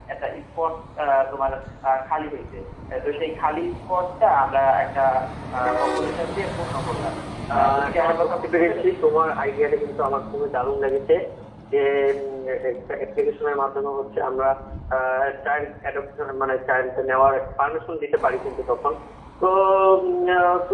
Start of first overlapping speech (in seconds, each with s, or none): 7.5 s